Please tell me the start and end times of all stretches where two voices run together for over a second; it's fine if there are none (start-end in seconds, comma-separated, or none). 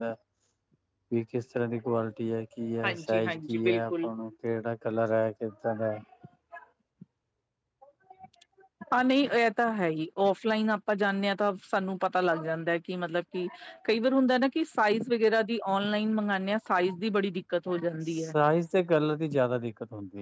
2.9-4.1